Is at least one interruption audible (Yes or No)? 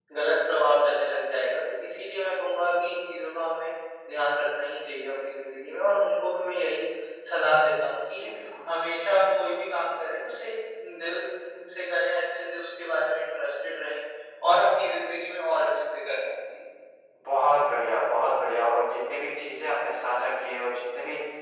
No